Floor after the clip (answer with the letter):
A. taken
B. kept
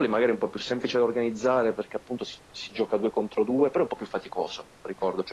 B